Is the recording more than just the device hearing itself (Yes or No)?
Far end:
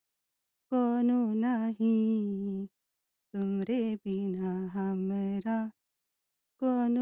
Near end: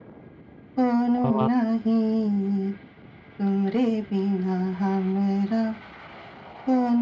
Yes